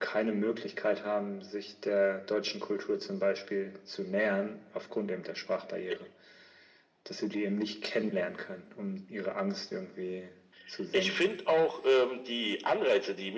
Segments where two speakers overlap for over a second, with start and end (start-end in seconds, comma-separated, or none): none